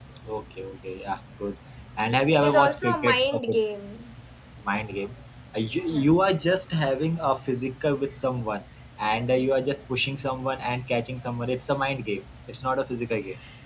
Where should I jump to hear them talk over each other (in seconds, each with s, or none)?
2.3 s